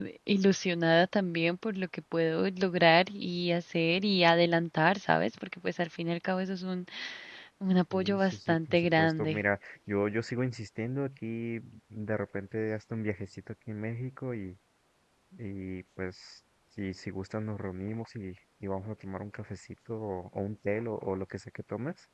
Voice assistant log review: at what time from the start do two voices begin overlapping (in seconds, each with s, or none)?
7.9 s